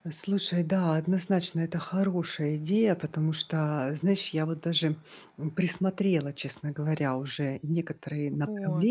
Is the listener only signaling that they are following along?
Yes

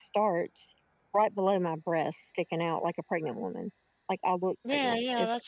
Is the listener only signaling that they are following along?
No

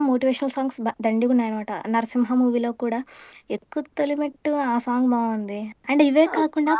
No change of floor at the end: No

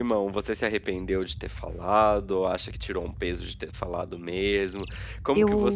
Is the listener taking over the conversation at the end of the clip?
No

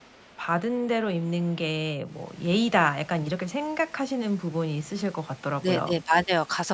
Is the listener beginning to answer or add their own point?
Yes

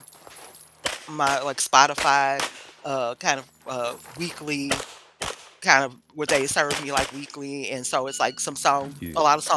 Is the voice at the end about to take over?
No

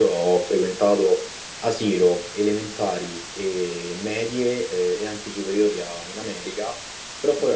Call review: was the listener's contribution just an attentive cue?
Yes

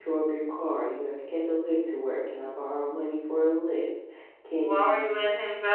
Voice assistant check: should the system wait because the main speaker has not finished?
No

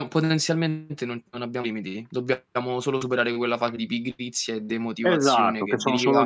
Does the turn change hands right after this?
Yes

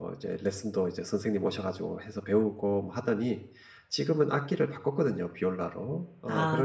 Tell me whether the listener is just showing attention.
Yes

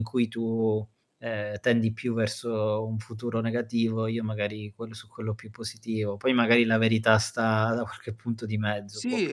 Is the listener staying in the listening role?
No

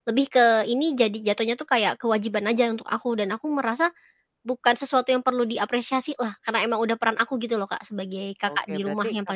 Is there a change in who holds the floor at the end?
Yes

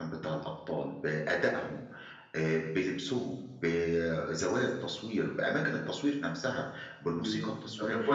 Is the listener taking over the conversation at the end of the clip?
Yes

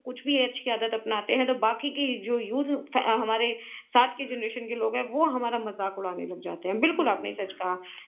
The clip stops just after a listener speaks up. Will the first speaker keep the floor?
Yes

